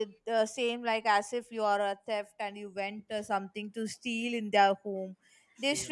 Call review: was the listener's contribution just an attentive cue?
Yes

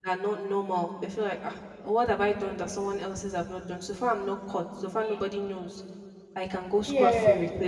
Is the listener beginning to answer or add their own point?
No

